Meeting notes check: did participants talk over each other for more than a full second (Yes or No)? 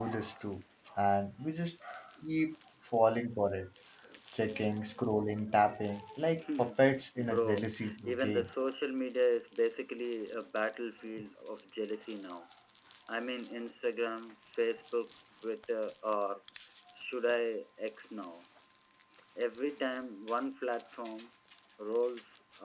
Yes